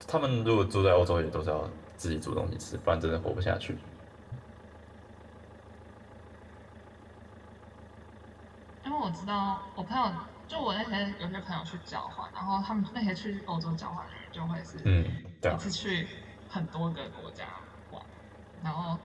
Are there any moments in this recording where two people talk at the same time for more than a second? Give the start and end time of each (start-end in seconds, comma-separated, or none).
none